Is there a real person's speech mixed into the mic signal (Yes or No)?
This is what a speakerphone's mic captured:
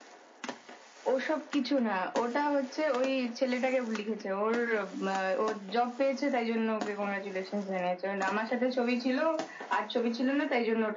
No